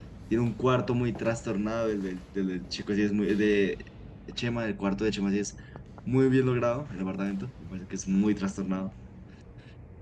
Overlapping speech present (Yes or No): No